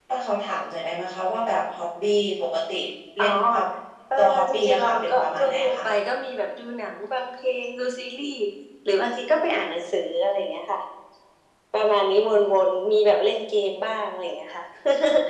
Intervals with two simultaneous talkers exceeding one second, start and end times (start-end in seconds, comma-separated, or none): 4.2-5.8